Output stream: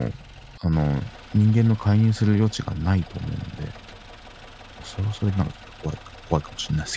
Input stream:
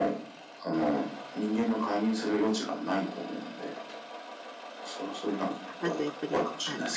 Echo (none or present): present